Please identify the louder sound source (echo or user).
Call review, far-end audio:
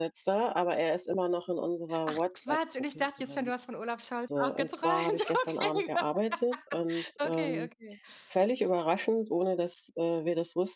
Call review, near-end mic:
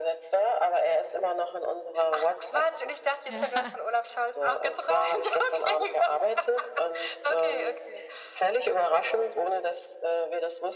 echo